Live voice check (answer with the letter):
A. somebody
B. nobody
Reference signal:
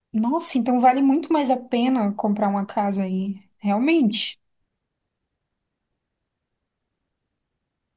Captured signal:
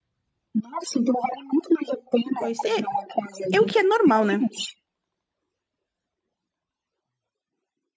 A